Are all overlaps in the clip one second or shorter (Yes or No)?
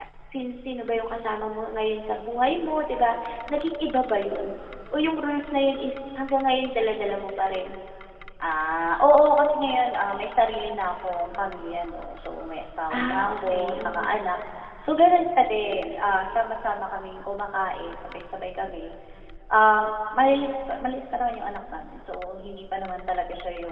No